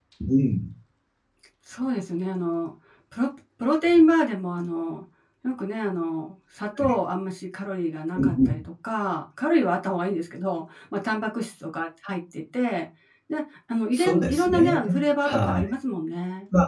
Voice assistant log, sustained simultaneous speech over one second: present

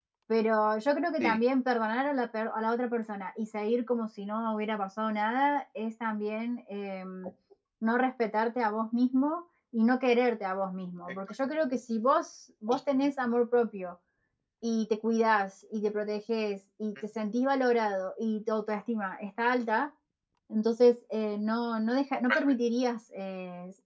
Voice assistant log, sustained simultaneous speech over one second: none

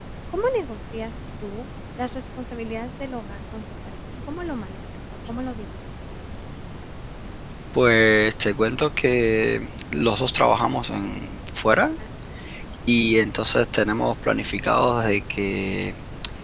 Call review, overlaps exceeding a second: none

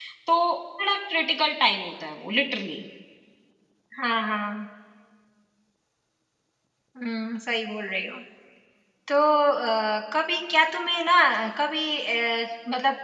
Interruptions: none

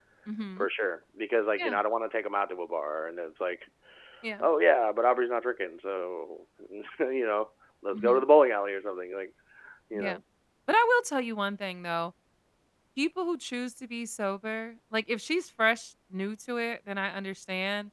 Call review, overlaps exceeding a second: none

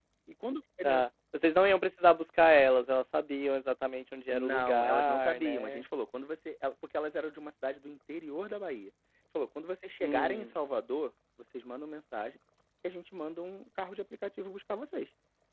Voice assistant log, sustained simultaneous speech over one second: present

